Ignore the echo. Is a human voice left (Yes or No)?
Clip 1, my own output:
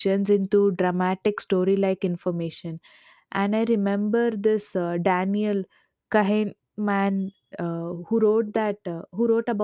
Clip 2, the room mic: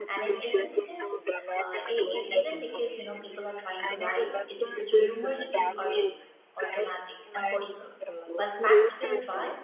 Yes